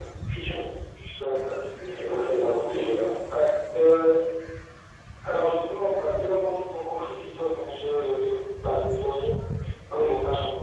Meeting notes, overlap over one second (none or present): none